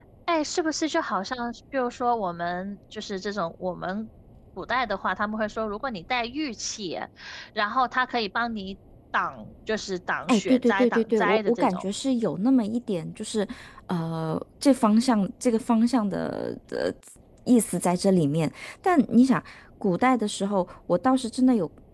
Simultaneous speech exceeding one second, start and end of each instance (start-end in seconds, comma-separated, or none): 10.3-11.8